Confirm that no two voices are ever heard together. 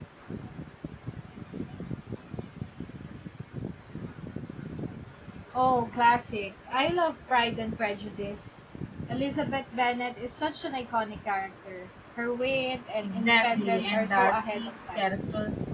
No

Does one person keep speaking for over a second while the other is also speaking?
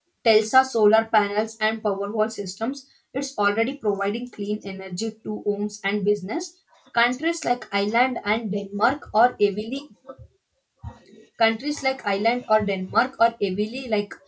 No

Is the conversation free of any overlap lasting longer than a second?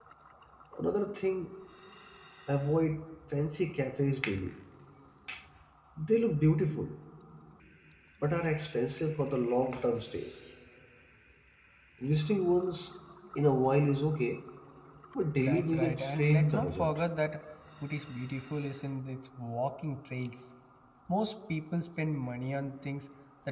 No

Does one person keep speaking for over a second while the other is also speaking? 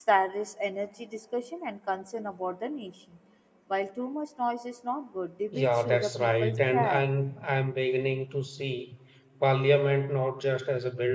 Yes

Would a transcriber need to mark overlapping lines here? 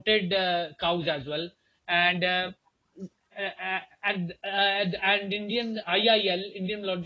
No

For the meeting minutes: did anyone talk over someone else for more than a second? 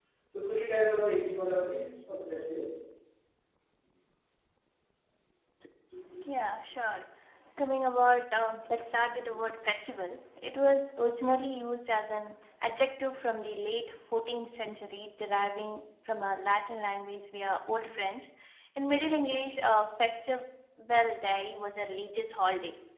No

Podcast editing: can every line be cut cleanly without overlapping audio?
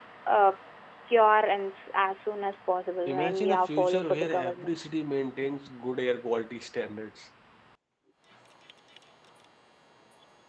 No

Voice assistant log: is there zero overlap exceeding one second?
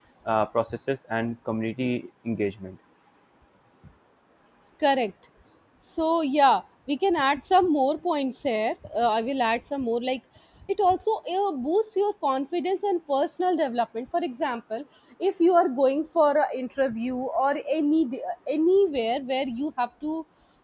Yes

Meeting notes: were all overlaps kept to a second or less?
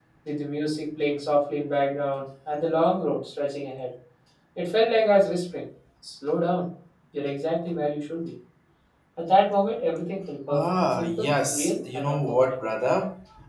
No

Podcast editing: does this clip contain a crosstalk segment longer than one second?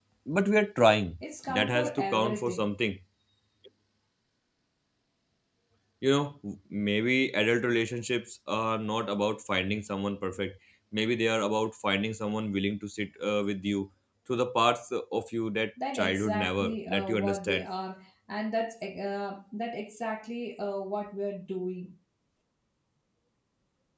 Yes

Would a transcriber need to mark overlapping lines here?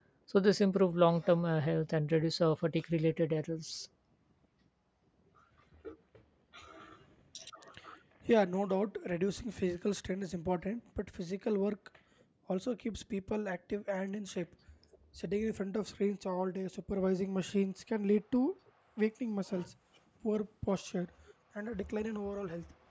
No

